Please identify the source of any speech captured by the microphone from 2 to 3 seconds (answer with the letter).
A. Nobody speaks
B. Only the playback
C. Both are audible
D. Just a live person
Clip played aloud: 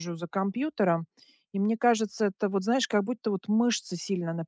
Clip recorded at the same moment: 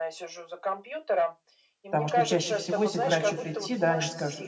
C